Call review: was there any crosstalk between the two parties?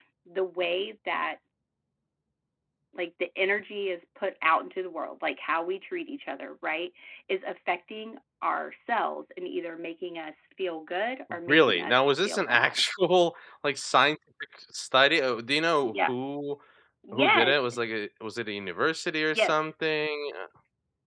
Yes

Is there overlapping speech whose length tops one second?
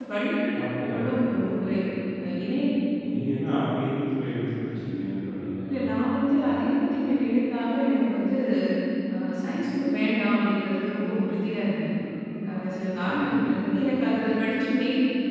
No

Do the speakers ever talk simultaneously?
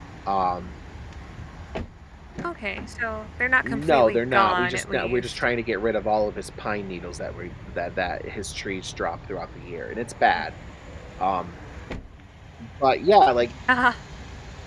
Yes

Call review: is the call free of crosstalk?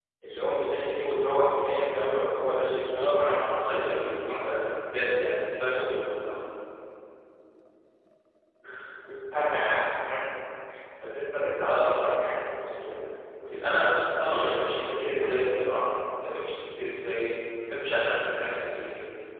No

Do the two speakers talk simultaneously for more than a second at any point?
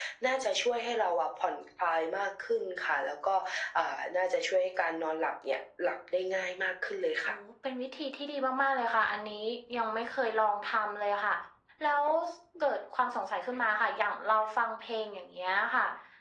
No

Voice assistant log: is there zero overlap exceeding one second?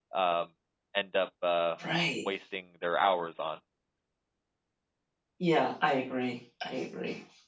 Yes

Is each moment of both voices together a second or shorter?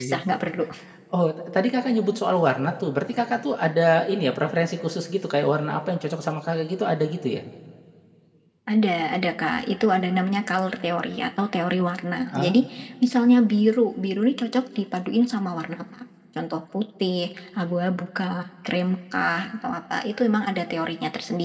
Yes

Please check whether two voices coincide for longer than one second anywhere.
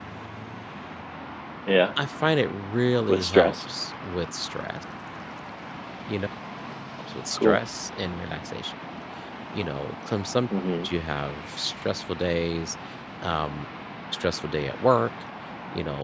No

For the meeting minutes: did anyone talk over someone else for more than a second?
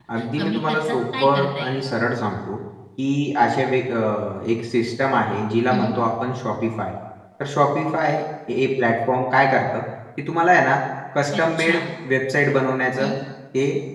Yes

